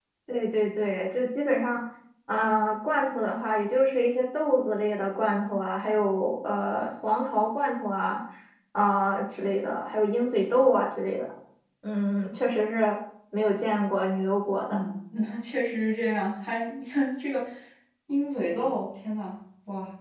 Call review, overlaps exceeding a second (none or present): none